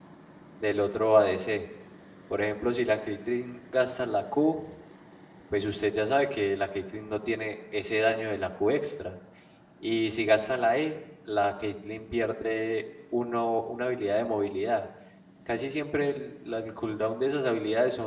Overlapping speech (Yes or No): No